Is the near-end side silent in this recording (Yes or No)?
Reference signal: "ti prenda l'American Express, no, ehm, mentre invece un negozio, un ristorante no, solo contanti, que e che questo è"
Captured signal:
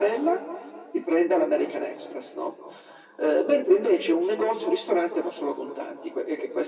Yes